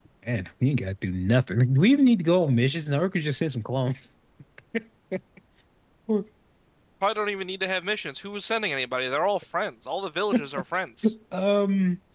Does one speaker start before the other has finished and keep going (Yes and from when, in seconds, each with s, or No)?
No